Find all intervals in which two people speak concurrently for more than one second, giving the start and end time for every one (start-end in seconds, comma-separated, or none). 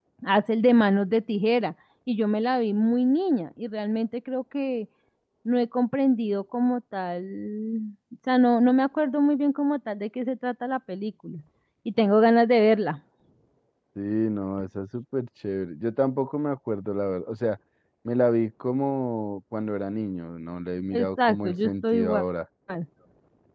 20.9-22.2